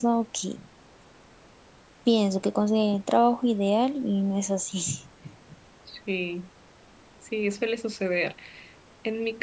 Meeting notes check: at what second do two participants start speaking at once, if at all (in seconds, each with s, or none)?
none